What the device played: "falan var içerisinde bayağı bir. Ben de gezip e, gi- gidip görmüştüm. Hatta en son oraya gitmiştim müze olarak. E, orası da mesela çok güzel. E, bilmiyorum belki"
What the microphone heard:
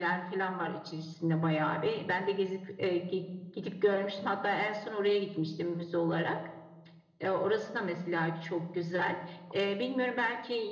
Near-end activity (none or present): none